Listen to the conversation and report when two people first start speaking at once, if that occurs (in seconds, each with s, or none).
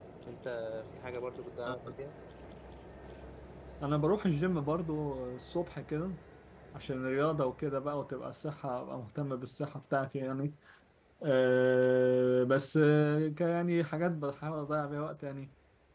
none